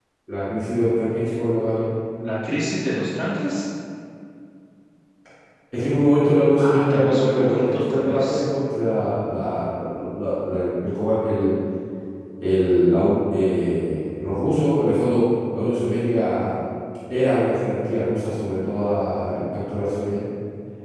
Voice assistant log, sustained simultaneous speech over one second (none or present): present